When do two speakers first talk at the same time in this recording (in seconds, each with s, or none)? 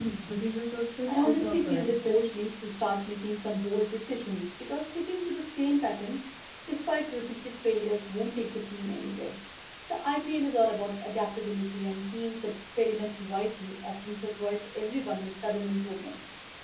1.1 s